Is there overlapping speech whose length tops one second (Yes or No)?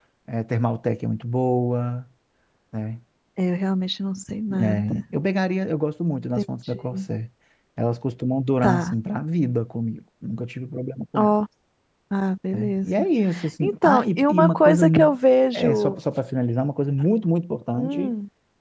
Yes